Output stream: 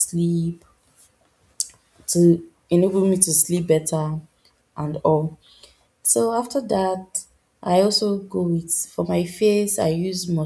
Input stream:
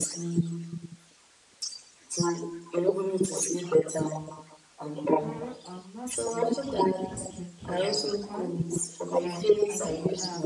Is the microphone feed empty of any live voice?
No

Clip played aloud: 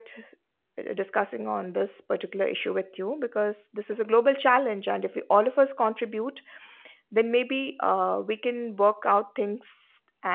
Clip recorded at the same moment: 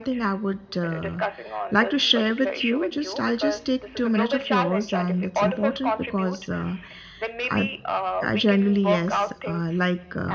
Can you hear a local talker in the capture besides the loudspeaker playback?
Yes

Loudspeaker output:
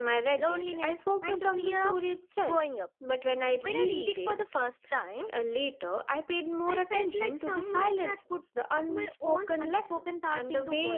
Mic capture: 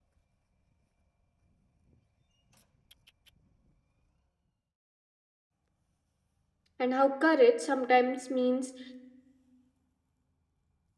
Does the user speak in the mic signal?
Yes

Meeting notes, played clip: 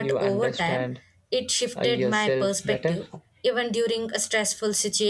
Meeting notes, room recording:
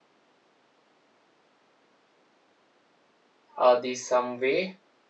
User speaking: Yes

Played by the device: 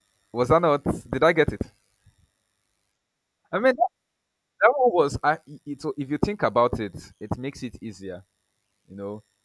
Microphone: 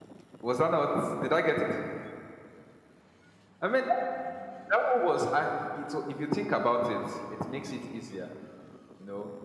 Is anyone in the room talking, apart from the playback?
No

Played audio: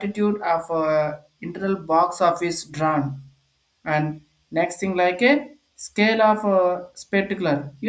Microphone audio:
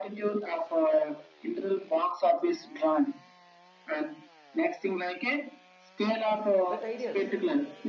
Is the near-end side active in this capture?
Yes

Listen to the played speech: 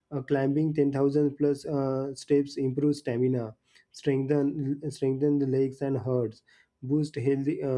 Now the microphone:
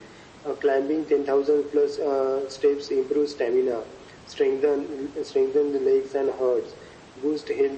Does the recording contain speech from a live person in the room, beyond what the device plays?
No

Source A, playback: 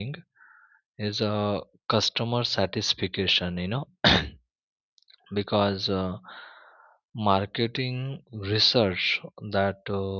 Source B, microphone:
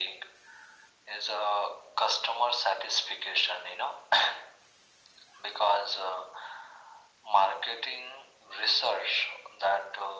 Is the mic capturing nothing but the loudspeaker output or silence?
Yes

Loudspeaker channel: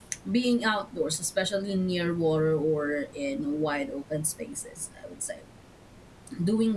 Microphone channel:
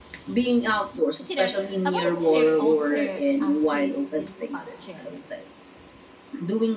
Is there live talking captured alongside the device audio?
Yes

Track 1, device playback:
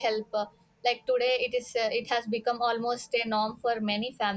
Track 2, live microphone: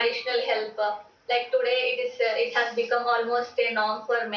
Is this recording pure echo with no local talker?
Yes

